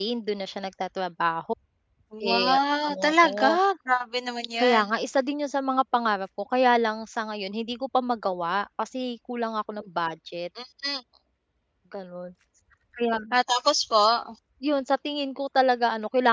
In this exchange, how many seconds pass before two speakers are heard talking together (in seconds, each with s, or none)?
2.3 s